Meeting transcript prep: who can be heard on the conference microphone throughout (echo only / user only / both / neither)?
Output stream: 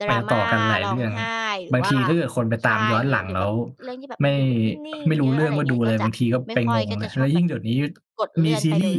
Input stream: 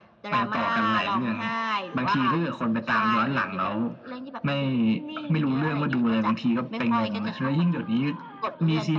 echo only